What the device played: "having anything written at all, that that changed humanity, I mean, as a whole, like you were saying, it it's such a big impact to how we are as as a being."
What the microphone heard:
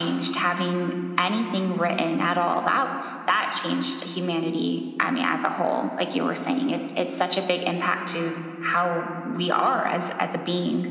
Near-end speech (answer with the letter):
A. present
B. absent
B